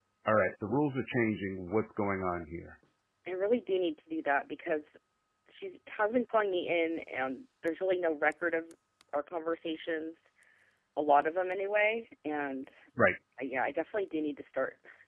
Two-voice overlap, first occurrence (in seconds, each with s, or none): none